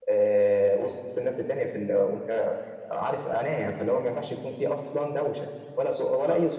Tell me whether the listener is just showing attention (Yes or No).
No